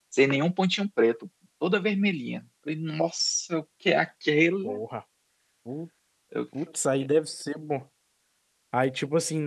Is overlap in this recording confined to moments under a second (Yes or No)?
Yes